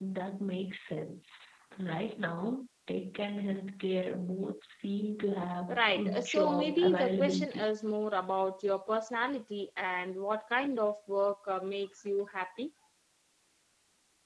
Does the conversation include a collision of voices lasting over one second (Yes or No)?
Yes